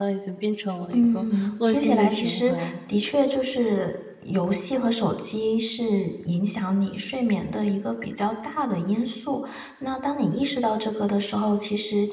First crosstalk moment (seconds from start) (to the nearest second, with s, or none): 1 s